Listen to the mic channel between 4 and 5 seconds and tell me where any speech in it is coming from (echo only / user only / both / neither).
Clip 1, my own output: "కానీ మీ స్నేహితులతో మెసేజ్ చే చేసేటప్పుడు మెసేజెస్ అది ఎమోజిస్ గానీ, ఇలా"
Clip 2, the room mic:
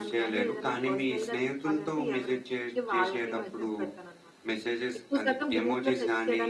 both